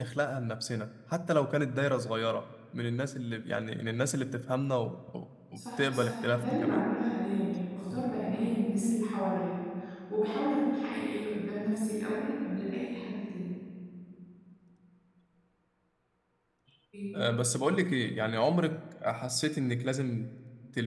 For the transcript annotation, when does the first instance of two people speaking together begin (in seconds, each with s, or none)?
5.6 s